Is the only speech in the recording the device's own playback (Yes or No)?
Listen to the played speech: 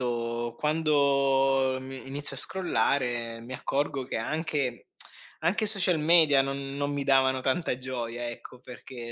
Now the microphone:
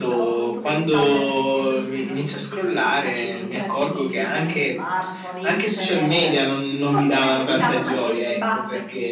No